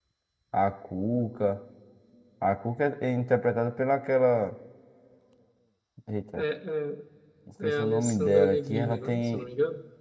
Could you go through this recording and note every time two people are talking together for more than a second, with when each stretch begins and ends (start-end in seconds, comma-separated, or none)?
7.6-9.4